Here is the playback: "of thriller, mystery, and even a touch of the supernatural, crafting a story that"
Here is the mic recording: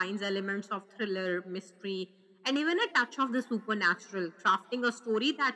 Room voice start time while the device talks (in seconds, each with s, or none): none